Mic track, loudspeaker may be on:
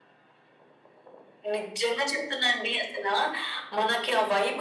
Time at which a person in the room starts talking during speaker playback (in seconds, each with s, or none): none